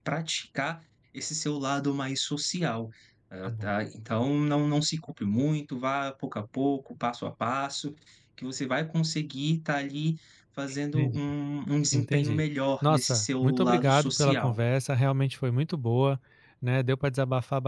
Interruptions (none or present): present